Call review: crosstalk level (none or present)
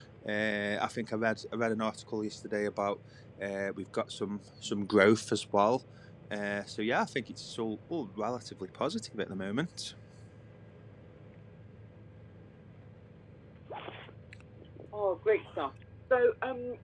none